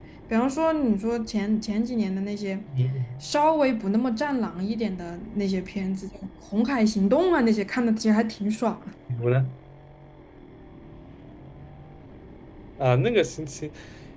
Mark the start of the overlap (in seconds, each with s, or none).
none